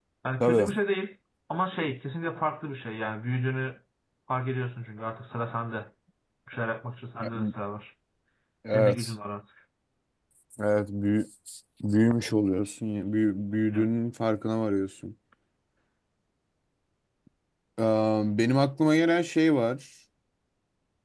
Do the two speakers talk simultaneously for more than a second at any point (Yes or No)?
No